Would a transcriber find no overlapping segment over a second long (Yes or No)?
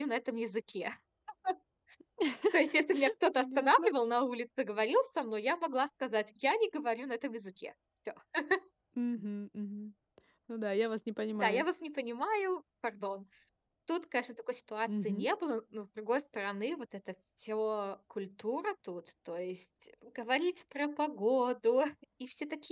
Yes